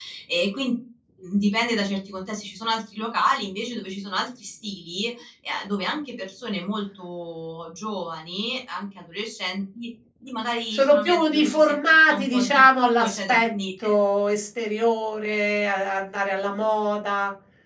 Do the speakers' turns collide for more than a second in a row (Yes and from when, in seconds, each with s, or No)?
Yes, from 10.7 s